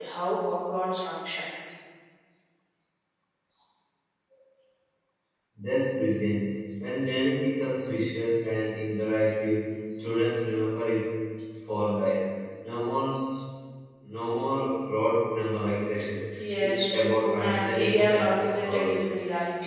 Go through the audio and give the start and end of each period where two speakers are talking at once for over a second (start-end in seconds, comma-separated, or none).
16.6-19.0